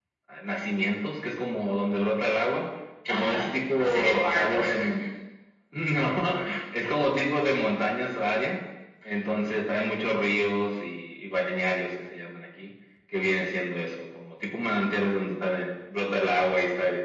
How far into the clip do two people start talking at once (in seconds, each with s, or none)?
3.0 s